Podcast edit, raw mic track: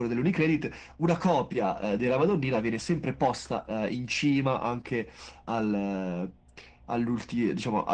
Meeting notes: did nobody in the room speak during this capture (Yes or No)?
Yes